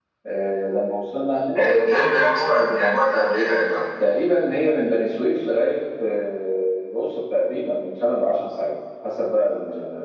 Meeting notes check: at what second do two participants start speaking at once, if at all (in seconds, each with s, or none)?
none